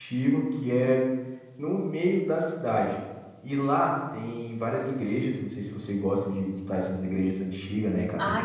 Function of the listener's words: taking over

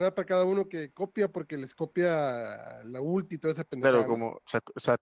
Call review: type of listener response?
taking over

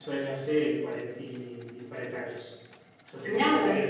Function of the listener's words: taking over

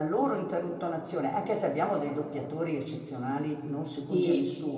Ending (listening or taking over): listening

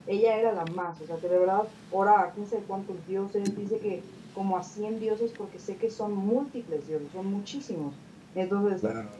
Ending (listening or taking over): taking over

